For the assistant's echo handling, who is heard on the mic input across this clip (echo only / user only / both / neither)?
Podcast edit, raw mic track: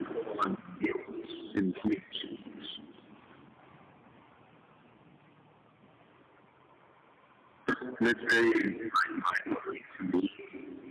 echo only